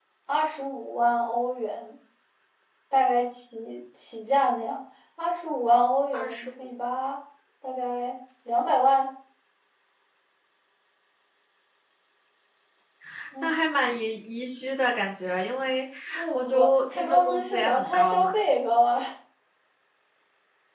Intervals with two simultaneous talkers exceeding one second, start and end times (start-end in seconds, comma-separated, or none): 16.3-18.3